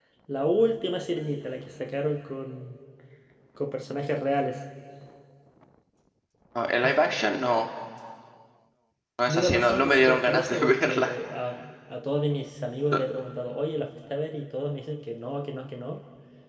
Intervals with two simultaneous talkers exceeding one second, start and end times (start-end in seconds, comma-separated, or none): 9.3-11.1